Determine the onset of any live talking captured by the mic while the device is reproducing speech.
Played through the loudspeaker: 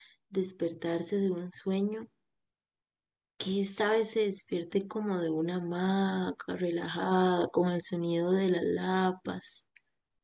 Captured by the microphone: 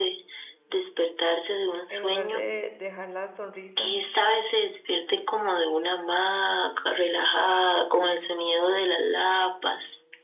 2 s

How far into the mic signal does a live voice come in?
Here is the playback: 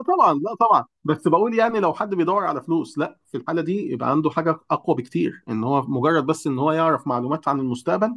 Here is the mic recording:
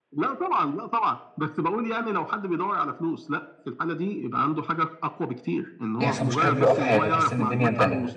6 s

